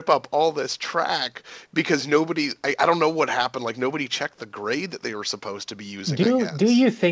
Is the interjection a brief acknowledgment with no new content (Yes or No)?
No